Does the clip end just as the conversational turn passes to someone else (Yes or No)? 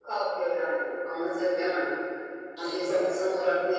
No